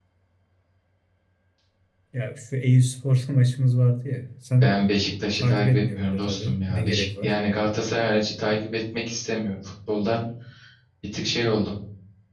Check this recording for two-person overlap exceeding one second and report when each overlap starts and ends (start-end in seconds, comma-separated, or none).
5.3-7.4